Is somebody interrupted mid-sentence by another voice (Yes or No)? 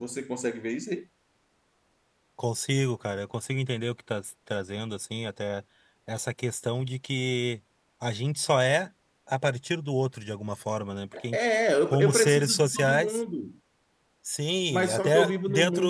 Yes